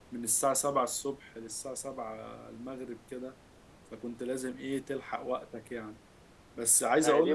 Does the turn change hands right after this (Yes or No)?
Yes